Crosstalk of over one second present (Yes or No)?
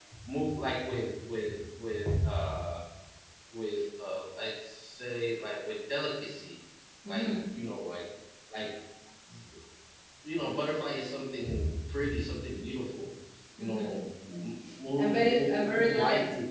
Yes